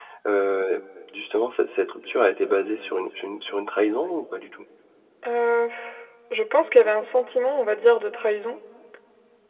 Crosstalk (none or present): none